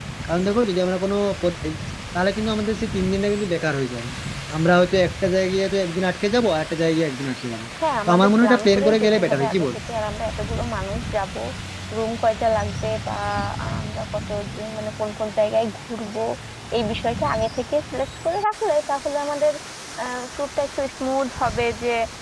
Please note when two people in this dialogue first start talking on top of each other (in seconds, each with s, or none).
8.1 s